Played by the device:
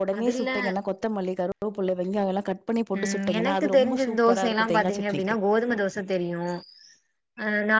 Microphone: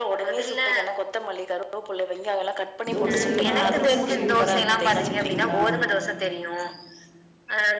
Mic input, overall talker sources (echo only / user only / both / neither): both